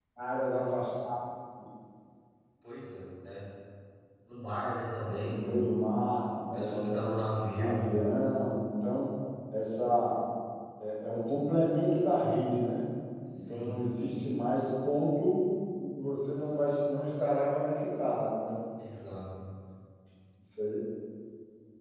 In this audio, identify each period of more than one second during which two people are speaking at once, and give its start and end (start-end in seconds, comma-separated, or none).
none